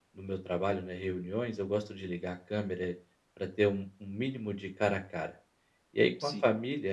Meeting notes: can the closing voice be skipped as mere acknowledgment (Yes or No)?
Yes